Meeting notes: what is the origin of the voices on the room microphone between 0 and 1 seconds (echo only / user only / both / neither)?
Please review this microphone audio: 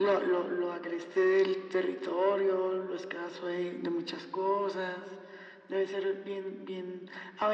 echo only